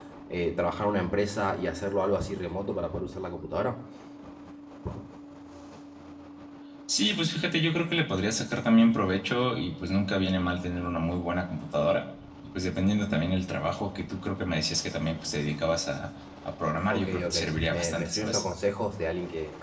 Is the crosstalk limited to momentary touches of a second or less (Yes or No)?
No